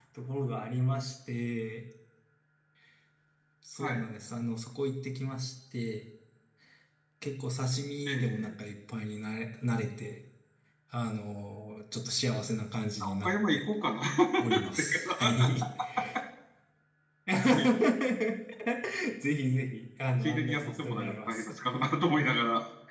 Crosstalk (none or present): present